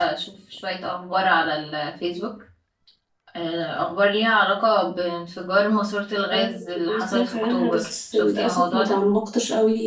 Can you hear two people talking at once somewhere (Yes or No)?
Yes